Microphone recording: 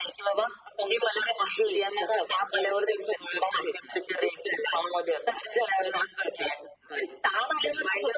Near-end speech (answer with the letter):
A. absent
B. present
A